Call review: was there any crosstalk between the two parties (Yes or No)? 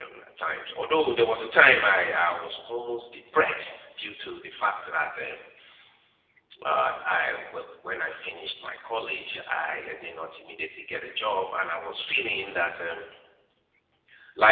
No